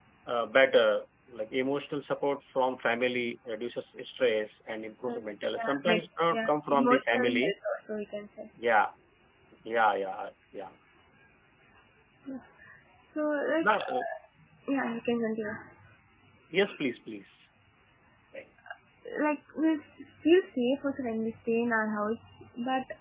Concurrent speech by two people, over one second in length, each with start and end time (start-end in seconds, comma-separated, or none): 5.1-7.5